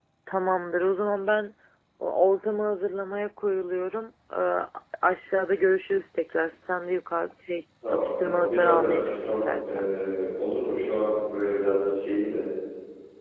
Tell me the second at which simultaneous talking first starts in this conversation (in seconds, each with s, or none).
7.8 s